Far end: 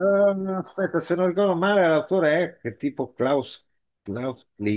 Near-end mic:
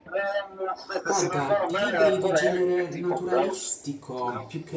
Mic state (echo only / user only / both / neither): both